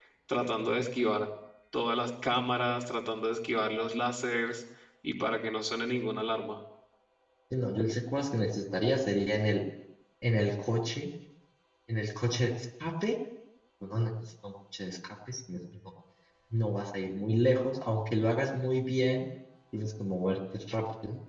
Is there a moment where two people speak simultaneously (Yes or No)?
No